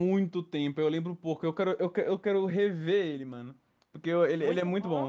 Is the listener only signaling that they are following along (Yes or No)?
No